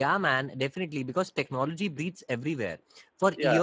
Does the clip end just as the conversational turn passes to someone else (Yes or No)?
No